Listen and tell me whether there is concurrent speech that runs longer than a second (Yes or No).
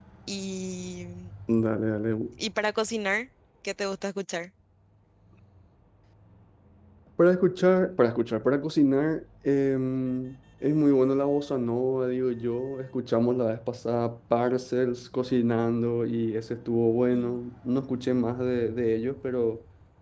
No